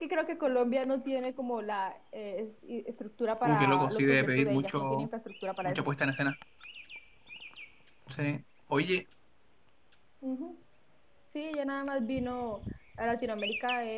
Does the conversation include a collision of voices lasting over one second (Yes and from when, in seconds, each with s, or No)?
Yes, from 3.4 s